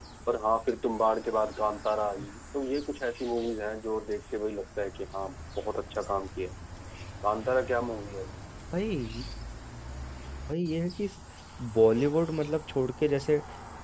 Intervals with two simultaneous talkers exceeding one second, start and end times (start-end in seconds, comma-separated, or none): none